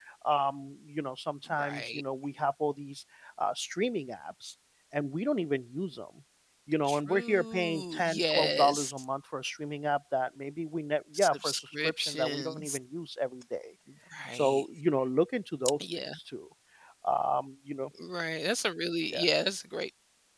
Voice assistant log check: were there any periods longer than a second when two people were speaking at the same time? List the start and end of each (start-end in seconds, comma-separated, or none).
6.9-8.9, 11.2-12.8